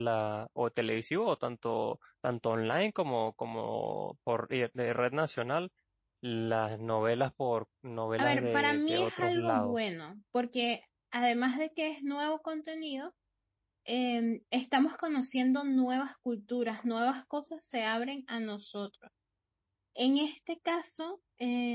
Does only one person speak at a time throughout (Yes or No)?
No